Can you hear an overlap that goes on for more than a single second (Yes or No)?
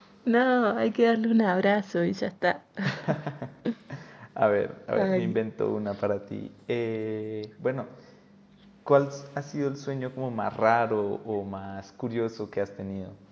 No